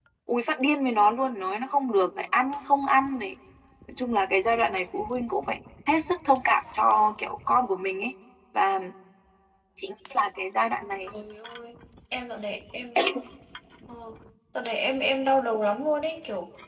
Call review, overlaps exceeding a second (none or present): none